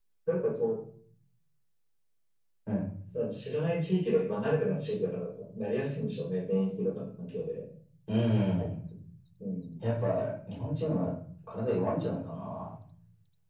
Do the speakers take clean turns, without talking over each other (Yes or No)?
Yes